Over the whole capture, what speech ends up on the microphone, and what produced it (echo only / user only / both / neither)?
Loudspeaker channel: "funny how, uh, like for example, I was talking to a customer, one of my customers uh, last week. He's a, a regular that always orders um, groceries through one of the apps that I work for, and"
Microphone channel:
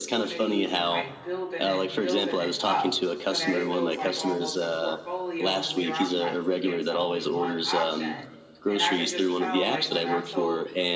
both